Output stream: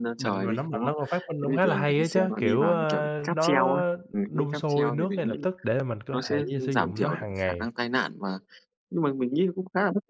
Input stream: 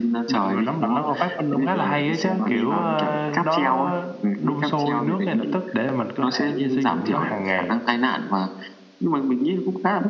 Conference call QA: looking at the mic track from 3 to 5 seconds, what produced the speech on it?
echo only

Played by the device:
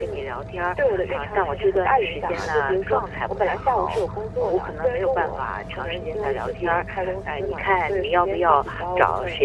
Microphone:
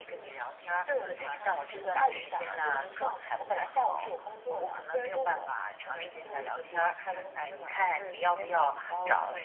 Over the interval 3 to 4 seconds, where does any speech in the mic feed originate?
echo only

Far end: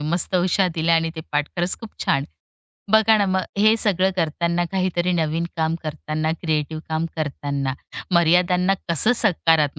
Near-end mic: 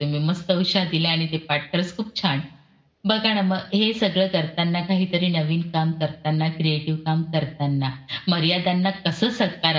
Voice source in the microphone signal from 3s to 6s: echo only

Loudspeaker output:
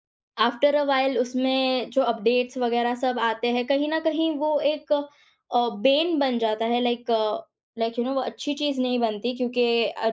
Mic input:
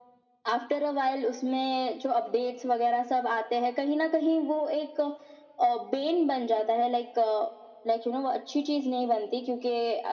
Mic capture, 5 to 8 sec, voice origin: echo only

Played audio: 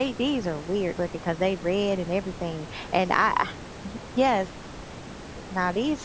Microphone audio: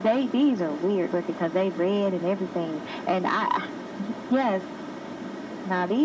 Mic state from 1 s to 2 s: echo only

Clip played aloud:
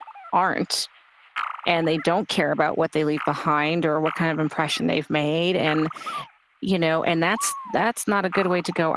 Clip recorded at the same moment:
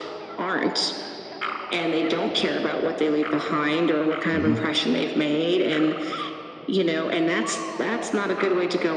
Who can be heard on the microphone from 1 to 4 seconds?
echo only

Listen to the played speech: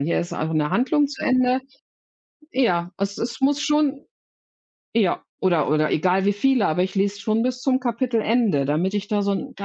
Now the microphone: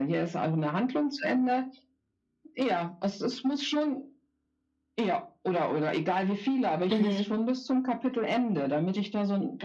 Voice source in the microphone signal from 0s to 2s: echo only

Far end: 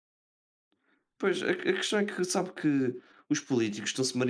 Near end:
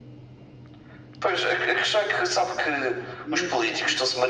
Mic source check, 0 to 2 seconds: echo only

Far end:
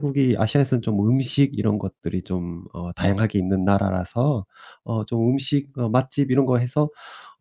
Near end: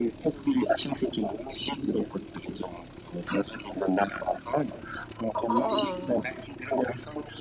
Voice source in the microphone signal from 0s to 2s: echo only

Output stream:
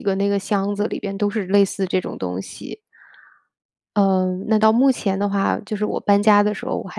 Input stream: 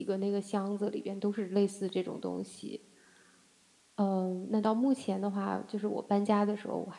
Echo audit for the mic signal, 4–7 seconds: echo only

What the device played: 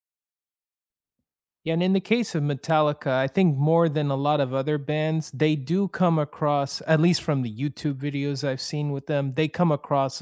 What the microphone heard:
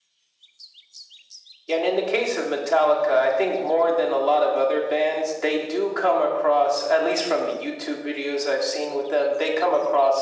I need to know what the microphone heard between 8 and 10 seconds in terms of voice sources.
echo only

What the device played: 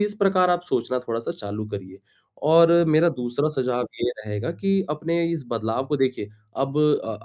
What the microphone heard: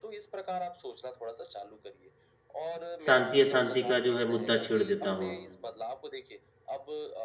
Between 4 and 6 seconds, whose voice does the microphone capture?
both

